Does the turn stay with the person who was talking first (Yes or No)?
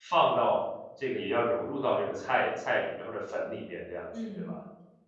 No